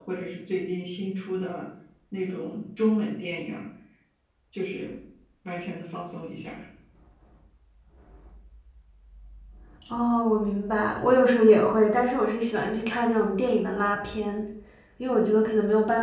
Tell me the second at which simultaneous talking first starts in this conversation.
none

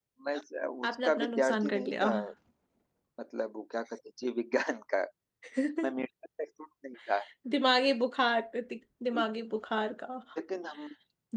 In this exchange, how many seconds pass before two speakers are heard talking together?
1 s

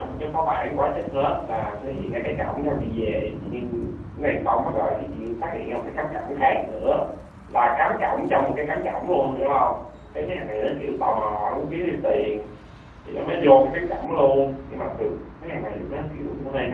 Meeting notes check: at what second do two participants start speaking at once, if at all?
none

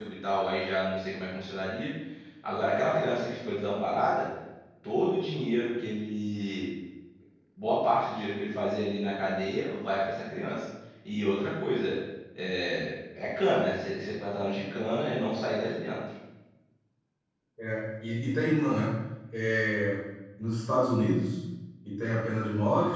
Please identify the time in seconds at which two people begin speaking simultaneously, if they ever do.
none

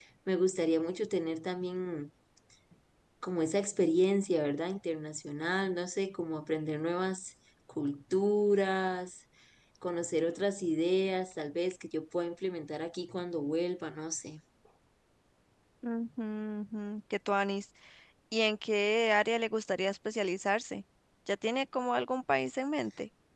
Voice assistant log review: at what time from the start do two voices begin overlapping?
none

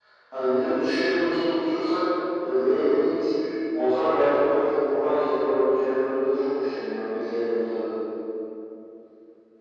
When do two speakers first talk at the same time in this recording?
none

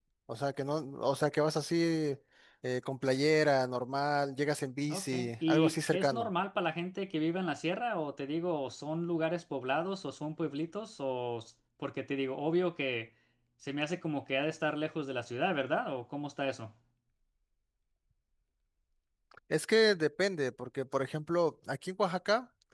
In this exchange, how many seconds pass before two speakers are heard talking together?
5 s

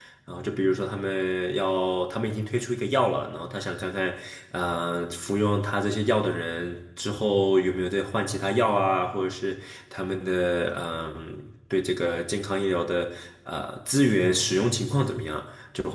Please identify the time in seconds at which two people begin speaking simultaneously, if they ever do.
none

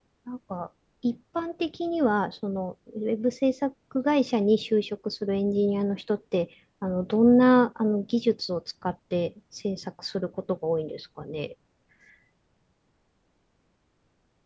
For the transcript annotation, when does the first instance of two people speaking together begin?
none

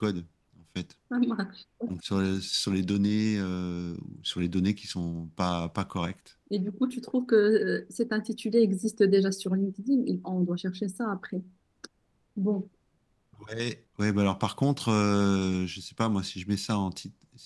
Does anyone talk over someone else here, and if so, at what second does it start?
none

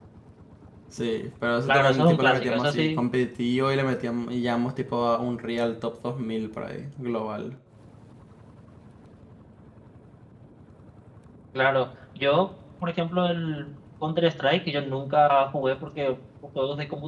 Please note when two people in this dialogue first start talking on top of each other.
2 s

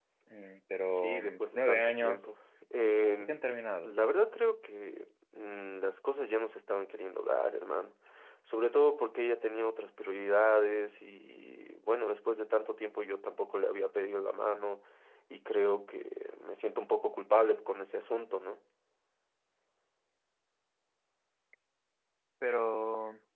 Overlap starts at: 1 s

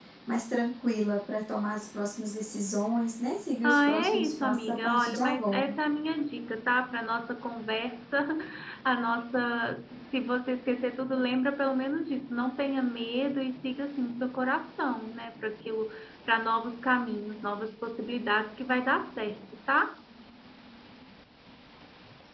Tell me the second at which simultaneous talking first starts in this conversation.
4 s

